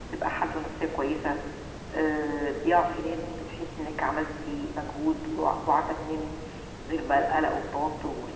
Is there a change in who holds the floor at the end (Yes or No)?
No